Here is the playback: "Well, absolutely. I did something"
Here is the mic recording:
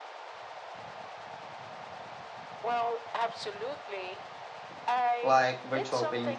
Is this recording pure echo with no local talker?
No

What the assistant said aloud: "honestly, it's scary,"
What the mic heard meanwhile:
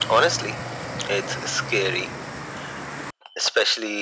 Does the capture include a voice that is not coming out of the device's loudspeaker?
No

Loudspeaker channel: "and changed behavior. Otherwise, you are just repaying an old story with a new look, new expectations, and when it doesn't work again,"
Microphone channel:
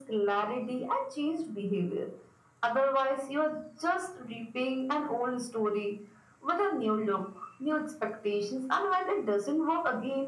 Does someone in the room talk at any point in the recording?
No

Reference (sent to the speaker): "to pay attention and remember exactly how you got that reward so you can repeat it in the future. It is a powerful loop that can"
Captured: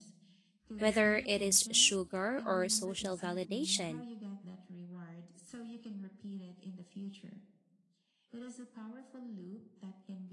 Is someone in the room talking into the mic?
Yes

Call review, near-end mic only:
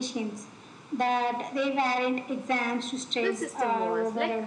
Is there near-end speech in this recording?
Yes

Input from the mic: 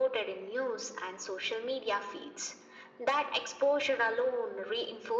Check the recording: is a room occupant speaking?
No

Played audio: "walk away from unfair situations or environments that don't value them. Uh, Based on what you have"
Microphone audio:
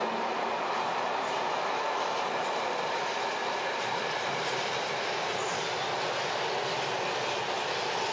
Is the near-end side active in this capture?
No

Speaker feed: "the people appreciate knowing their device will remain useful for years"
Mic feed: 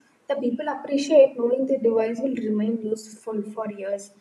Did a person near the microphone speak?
No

